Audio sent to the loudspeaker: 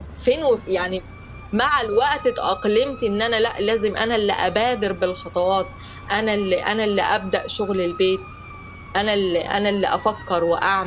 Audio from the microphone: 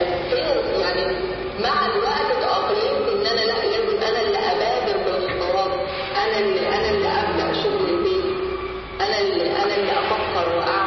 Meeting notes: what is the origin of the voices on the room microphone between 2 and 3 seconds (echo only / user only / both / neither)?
echo only